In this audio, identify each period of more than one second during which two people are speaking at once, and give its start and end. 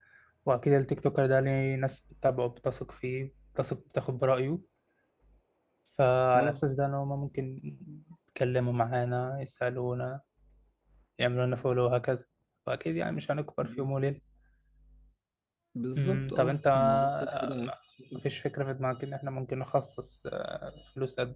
16.0-17.7

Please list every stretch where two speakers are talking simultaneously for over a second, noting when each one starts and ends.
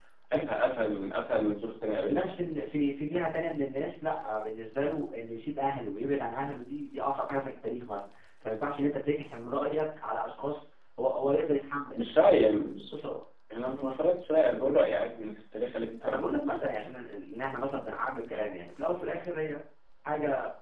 none

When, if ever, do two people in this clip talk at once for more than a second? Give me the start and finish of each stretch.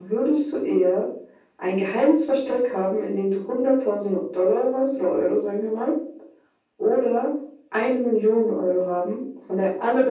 none

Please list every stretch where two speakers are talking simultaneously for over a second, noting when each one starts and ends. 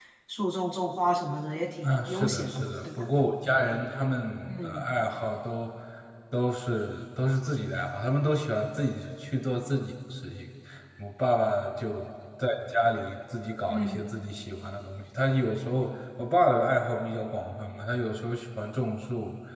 1.8-3.0

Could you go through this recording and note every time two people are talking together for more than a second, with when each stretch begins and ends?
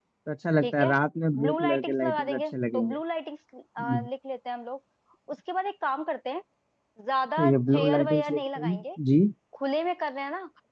1.4-3.0, 7.4-8.8

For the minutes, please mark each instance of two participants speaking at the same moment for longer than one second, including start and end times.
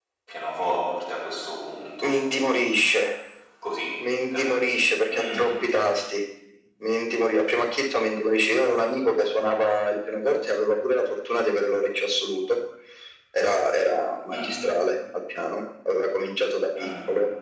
none

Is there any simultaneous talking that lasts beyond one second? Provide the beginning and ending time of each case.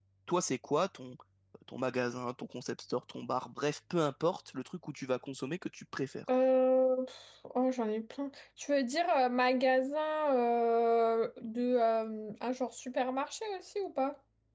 none

